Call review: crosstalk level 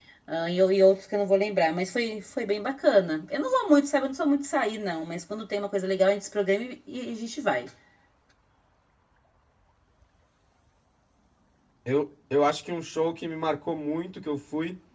none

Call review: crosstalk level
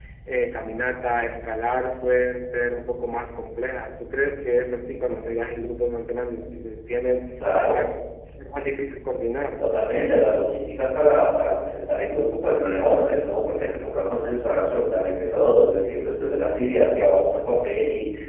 none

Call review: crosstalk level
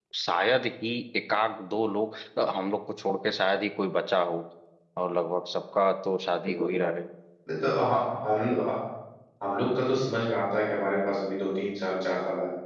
none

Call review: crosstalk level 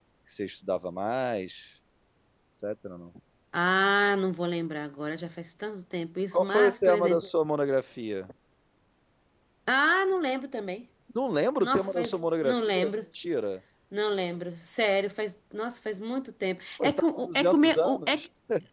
present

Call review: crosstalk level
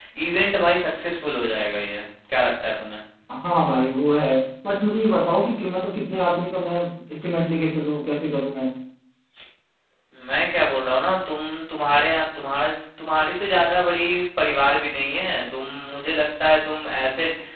none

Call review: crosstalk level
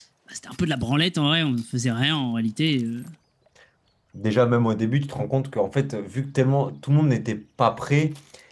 none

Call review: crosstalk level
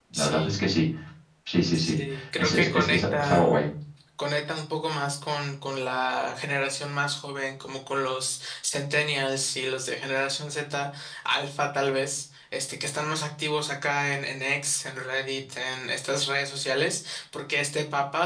present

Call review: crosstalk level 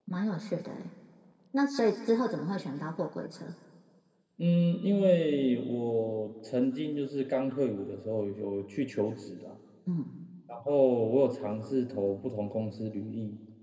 none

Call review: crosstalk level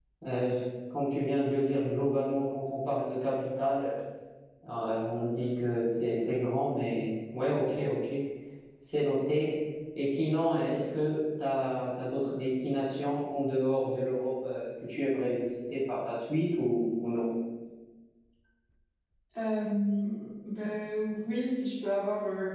none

